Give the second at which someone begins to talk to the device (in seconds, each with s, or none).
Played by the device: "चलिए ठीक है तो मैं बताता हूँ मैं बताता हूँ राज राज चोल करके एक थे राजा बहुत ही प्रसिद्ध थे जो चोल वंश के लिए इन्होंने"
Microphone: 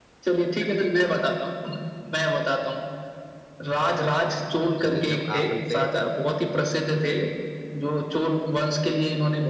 4.8 s